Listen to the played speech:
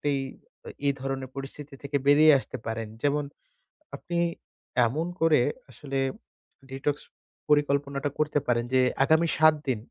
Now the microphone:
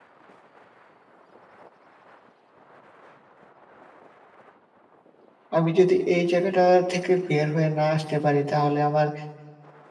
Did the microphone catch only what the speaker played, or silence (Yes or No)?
No